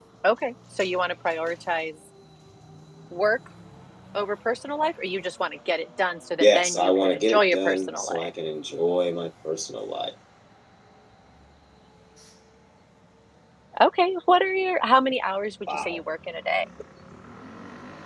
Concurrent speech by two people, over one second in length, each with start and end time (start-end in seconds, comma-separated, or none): 6.4-8.3